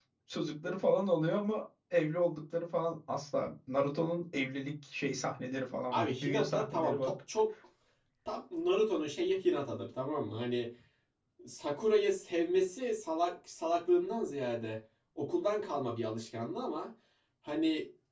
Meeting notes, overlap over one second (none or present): present